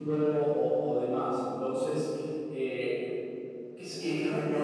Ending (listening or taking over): taking over